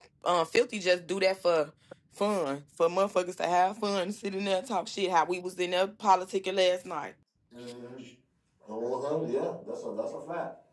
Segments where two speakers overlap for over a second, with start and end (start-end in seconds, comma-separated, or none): none